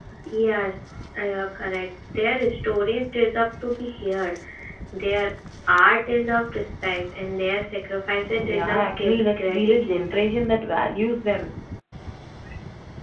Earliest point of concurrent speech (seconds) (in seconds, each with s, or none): 8.4 s